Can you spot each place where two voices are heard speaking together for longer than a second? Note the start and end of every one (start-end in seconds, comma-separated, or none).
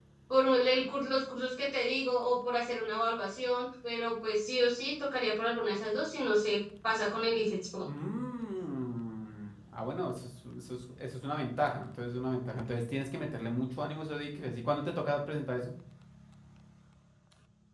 none